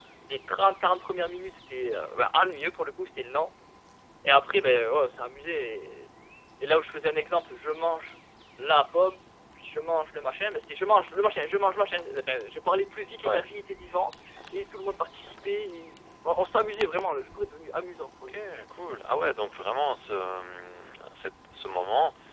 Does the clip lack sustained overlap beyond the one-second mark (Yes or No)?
Yes